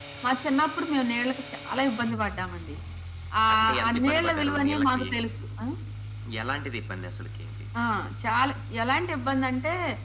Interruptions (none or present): present